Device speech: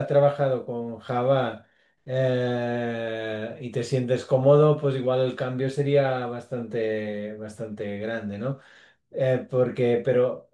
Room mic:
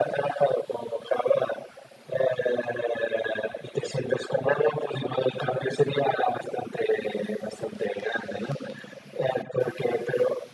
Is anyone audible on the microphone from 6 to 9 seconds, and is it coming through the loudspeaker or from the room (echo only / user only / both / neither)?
echo only